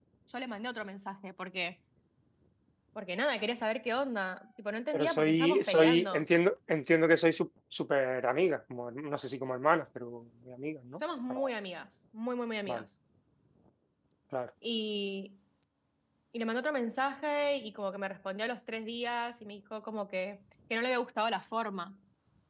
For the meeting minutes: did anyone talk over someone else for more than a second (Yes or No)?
Yes